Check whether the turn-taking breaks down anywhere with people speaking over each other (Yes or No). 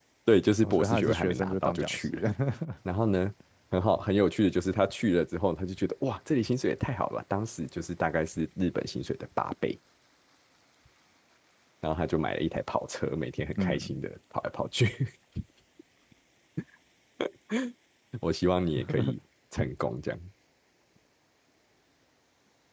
Yes